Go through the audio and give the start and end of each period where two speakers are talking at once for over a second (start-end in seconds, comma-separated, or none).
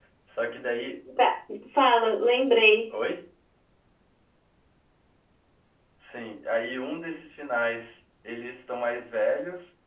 none